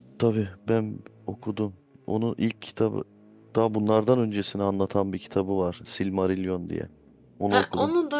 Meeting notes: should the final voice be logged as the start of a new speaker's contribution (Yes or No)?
Yes